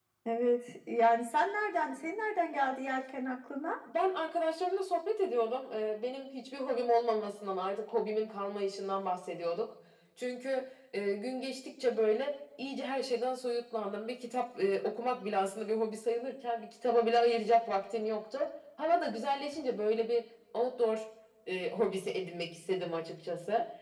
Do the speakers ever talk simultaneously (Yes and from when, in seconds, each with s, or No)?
No